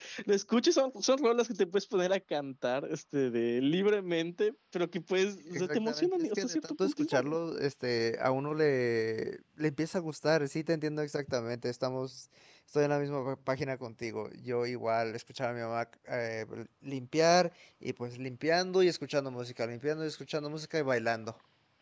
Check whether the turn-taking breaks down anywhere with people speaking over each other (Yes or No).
Yes